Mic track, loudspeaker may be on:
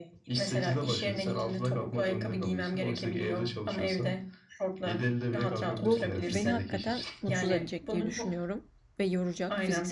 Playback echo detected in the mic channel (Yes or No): Yes